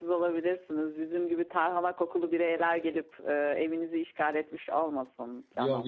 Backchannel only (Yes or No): No